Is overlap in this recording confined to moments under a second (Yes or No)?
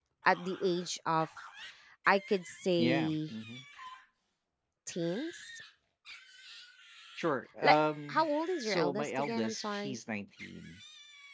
No